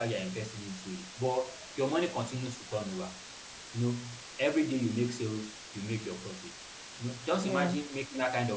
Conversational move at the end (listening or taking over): listening